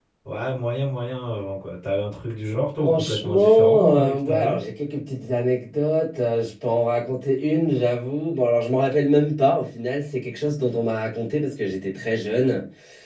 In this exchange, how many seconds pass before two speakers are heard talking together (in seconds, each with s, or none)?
2.8 s